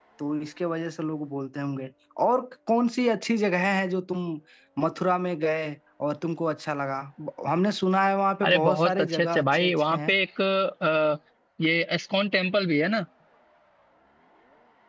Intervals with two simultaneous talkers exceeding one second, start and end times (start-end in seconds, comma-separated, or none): 8.4-10.1